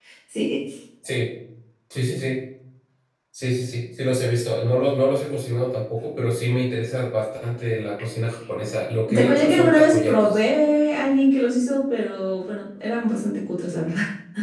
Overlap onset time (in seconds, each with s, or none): 9.1 s